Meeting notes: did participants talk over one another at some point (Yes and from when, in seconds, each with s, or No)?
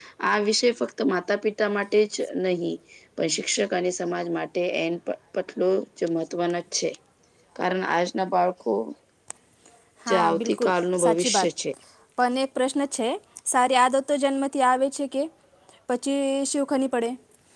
Yes, from 10.1 s